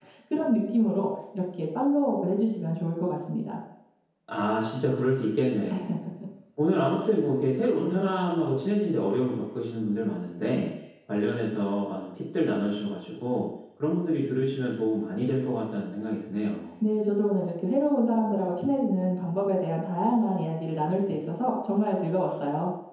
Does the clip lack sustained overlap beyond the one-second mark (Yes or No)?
Yes